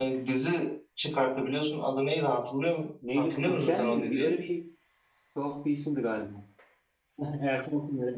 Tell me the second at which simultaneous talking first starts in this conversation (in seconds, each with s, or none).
3.0 s